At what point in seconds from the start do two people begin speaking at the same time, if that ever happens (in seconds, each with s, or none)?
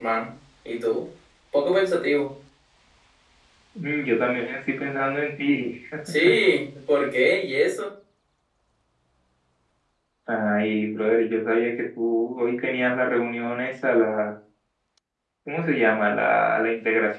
none